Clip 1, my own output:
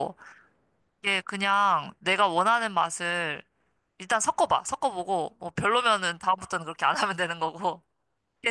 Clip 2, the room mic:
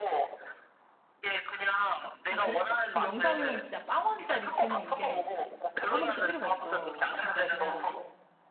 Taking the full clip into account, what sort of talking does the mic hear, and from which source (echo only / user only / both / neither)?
both